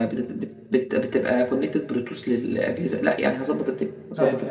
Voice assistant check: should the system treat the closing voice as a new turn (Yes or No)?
Yes